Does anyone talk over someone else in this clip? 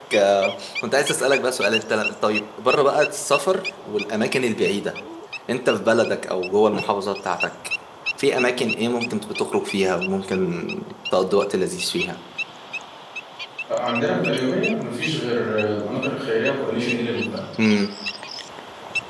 No

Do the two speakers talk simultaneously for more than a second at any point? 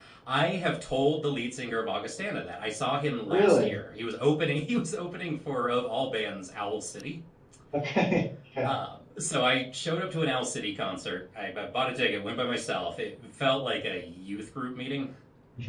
No

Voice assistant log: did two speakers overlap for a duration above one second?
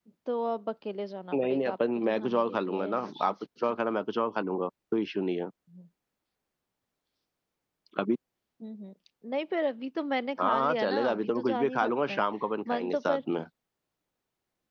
Yes, from 1.3 s

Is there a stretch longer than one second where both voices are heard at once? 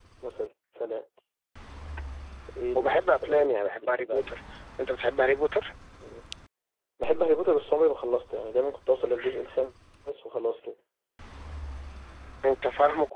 Yes, from 2.8 s

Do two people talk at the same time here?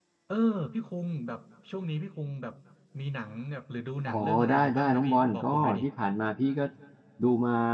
Yes, from 4.1 s

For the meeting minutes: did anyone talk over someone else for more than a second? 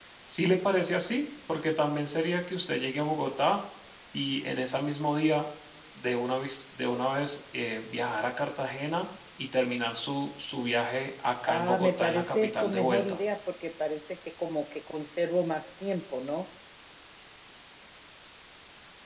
Yes, from 11.4 s

